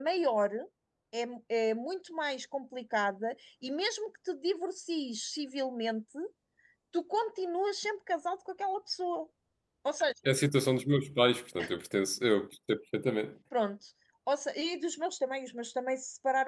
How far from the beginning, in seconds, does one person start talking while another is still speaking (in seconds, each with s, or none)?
none